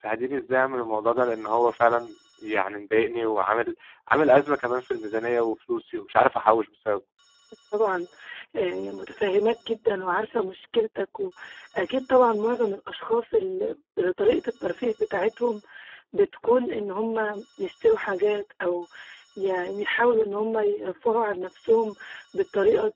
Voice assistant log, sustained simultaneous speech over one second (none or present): none